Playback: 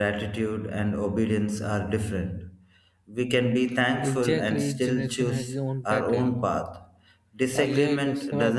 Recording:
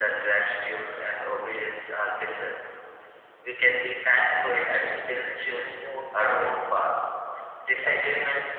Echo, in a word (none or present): present